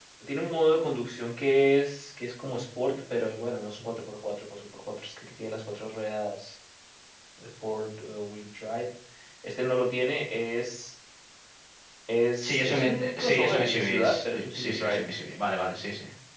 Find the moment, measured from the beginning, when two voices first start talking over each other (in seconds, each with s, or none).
12.4 s